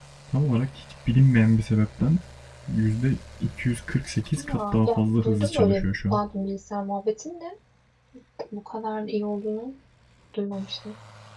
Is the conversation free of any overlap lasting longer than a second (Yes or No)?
No